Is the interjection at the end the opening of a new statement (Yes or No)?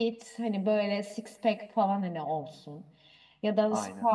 No